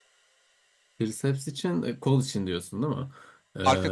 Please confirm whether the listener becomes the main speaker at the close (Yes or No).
No